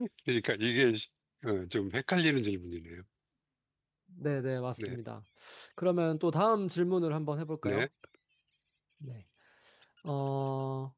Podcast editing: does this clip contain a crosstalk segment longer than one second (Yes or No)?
No